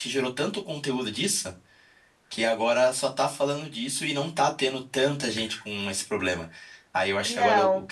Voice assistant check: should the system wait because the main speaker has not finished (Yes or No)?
Yes